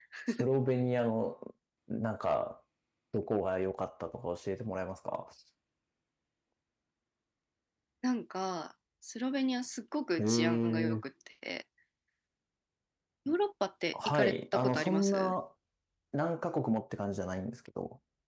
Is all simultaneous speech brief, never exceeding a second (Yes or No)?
No